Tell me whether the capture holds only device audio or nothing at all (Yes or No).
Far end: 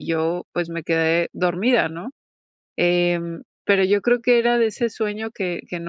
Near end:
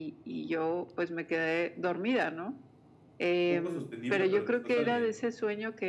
No